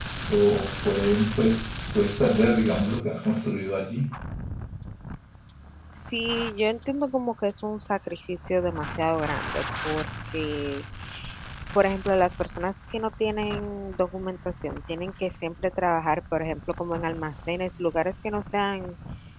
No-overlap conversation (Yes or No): Yes